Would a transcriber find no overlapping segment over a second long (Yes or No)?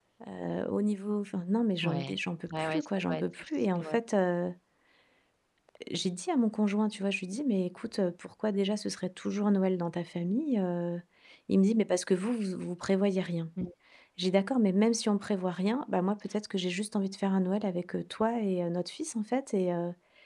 No